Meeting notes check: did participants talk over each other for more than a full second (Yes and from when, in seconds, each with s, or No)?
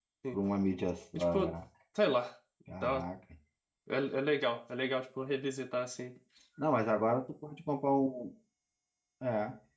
No